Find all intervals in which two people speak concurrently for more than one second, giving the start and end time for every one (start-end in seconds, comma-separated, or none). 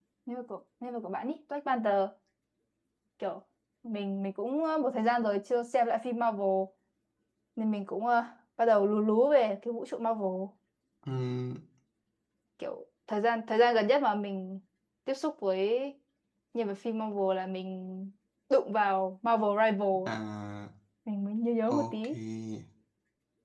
none